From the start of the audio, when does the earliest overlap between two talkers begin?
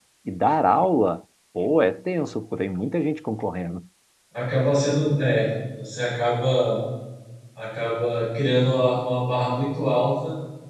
none

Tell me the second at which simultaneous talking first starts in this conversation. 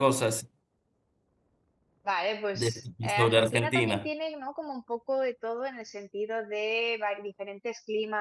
3 s

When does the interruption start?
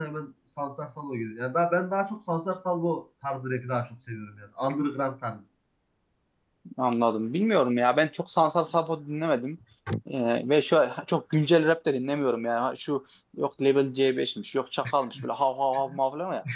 none

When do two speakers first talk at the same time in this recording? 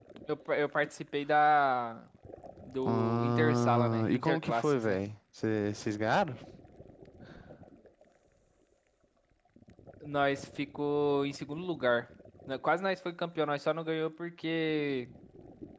3 s

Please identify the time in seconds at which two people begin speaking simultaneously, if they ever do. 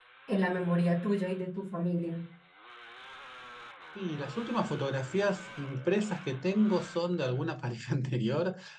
none

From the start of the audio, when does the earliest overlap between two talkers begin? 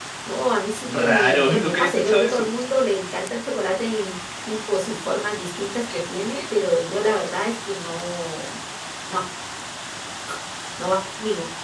1 s

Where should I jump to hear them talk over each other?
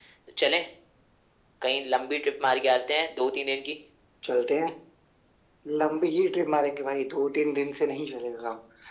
none

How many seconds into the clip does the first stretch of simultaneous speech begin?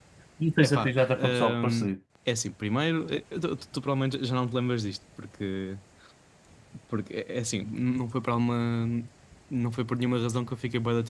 1 s

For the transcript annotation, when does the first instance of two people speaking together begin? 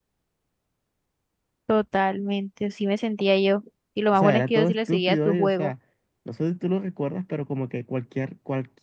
4 s

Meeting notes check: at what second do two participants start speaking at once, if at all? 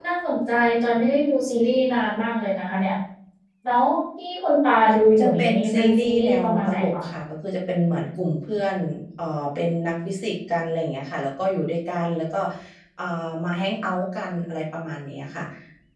5 s

